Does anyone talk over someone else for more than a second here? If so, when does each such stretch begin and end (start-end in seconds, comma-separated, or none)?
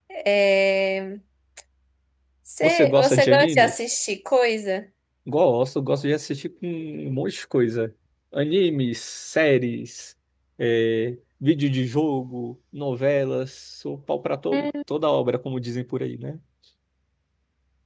2.6-3.8